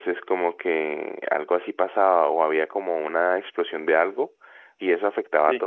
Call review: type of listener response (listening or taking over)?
listening